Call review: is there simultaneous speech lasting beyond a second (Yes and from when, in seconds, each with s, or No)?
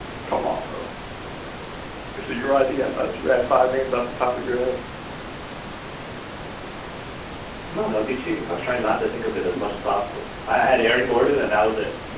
No